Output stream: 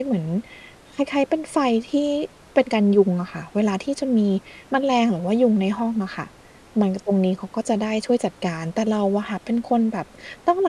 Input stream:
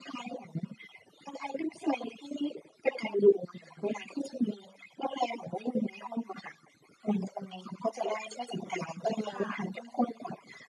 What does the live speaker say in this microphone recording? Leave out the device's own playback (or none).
ค่ะ